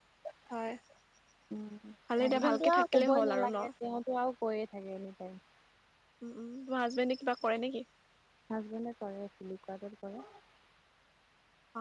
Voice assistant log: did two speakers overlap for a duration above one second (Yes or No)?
Yes